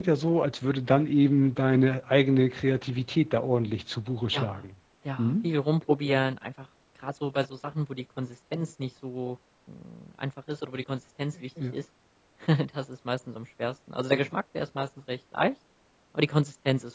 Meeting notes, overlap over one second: none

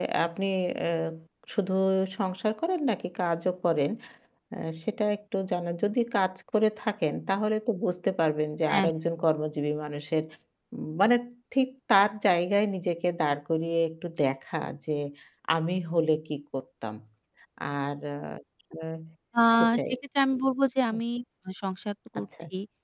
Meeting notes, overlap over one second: none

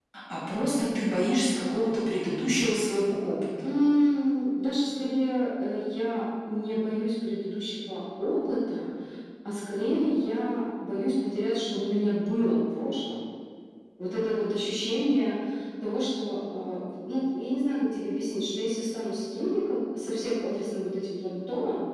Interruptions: none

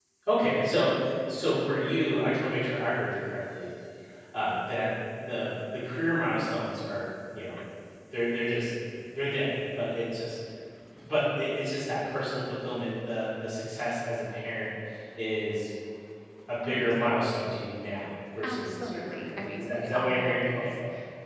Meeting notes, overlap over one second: present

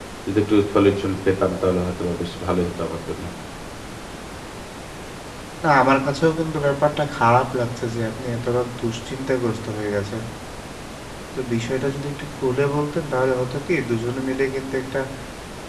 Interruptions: none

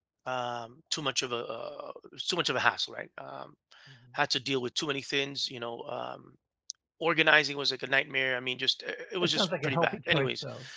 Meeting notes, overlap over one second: present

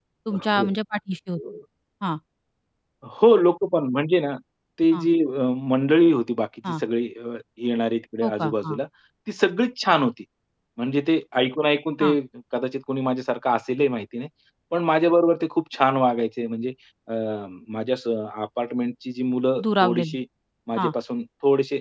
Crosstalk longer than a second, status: none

